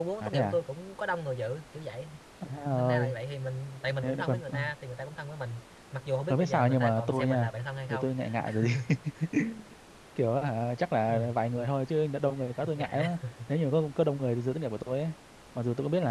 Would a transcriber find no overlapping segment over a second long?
No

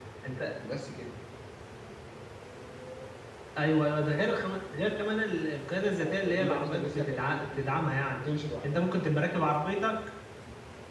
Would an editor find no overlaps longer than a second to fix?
No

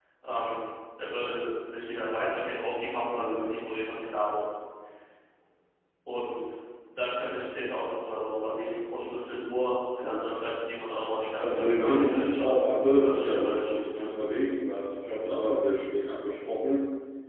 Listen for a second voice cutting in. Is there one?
Yes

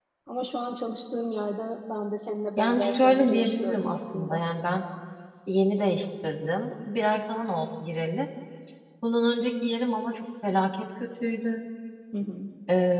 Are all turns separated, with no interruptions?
No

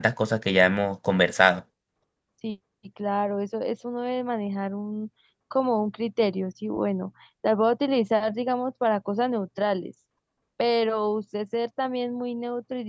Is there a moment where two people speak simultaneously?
No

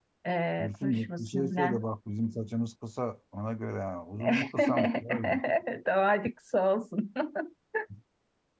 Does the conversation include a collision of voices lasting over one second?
Yes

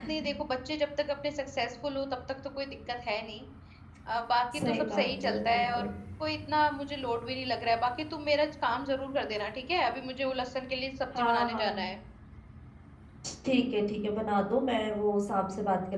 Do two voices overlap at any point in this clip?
Yes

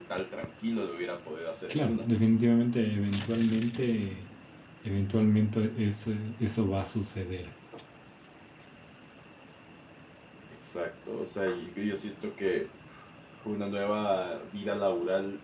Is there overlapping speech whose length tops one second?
No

